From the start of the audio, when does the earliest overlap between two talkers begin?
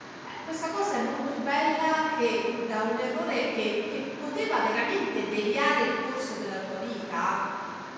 none

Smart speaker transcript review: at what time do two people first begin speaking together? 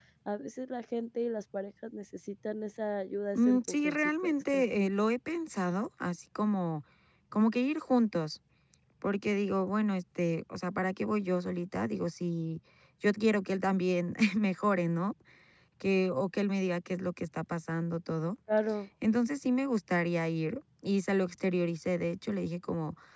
3.4 s

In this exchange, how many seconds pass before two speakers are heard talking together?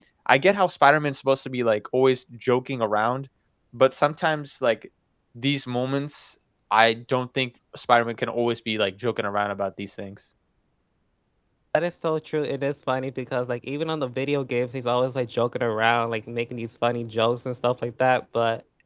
none

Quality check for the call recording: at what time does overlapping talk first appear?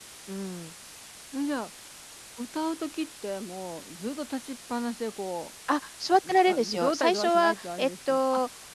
6.3 s

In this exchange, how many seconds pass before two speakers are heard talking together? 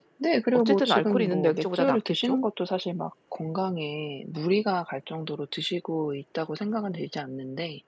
0.5 s

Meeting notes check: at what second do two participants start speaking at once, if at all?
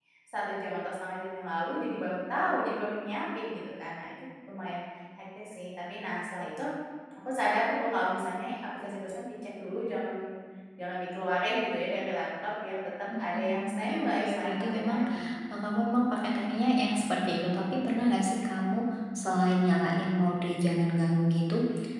13.1 s

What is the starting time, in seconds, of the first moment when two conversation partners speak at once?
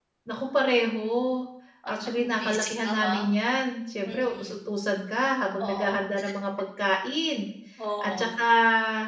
1.9 s

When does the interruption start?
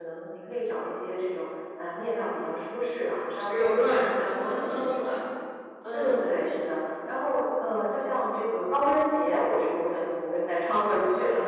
3.5 s

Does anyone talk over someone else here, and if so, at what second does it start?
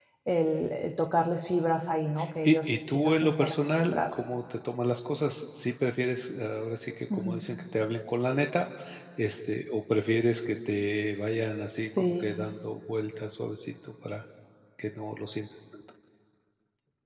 2.4 s

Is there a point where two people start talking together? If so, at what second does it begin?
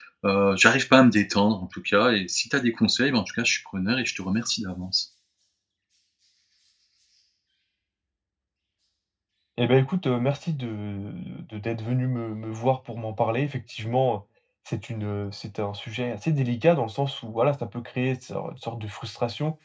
none

